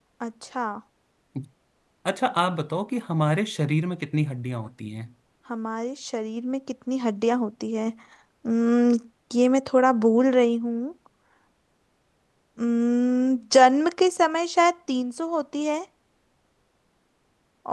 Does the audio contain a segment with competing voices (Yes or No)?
No